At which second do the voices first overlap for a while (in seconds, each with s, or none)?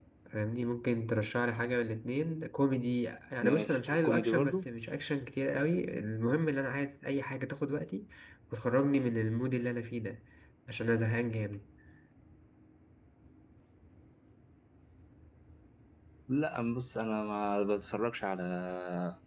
3.4 s